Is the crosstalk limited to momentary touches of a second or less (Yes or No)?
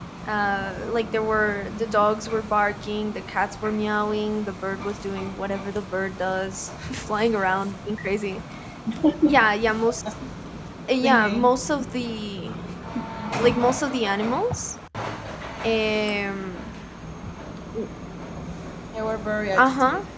Yes